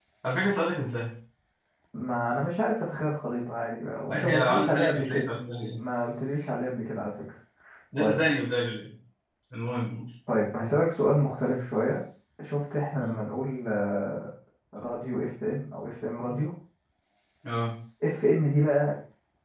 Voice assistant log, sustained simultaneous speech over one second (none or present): present